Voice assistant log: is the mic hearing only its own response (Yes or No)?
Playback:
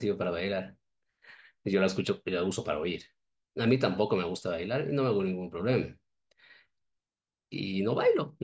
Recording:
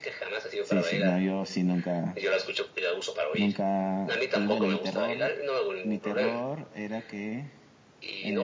No